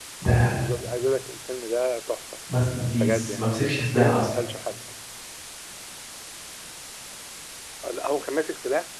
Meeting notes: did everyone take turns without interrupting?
No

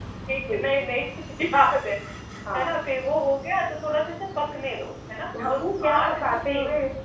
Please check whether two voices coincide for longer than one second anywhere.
Yes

